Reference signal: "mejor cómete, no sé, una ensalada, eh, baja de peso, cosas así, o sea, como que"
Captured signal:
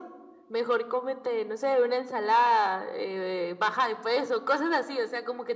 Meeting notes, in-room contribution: none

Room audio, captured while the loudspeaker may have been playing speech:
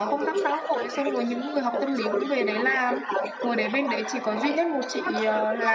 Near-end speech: present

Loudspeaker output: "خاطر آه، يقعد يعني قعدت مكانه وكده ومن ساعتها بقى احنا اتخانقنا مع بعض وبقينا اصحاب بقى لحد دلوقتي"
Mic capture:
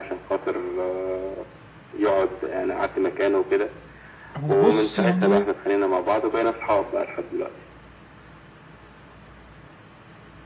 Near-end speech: present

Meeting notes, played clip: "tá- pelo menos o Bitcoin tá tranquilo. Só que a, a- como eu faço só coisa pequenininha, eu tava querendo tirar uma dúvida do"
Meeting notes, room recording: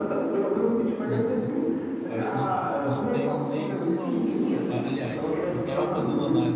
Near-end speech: present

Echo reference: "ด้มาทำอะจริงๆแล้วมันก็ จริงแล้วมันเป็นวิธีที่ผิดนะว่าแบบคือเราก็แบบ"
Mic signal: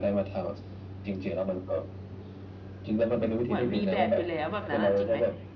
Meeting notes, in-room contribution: present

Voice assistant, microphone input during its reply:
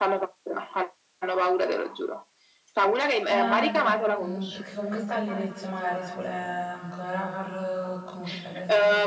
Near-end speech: present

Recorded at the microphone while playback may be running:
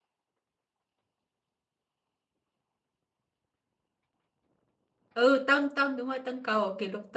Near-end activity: present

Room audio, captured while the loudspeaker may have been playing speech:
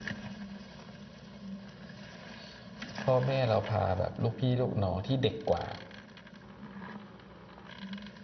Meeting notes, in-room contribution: present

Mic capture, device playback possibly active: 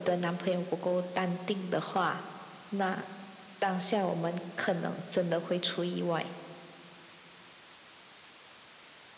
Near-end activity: none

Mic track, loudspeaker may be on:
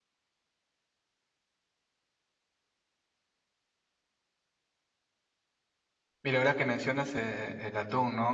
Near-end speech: present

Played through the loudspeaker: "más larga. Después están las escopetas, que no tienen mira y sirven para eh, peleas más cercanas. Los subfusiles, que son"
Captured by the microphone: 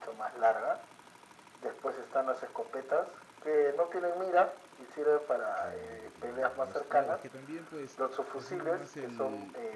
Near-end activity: present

